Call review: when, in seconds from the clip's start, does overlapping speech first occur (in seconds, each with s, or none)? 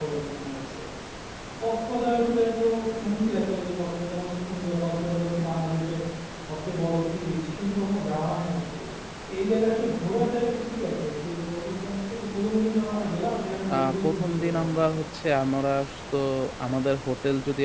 13.7 s